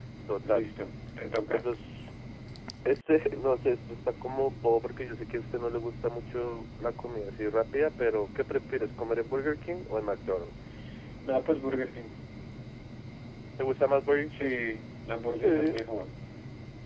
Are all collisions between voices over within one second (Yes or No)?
Yes